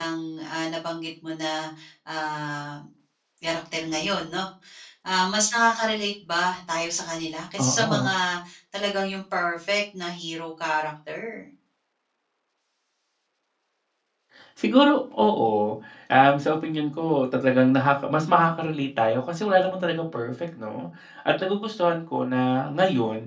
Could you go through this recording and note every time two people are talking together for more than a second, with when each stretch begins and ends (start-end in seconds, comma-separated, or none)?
none